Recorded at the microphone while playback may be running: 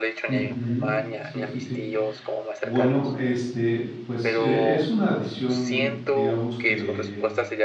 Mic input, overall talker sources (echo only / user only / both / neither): both